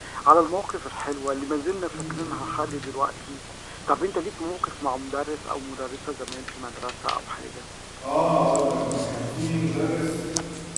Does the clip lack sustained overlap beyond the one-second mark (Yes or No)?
Yes